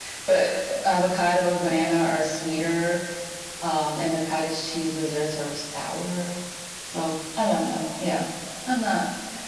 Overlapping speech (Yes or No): No